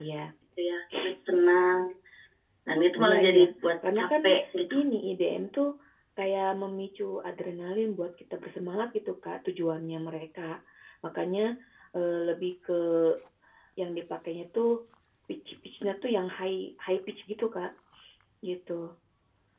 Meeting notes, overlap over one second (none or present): none